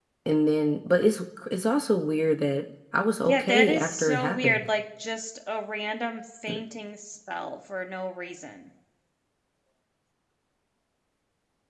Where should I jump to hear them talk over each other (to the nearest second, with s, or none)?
3 s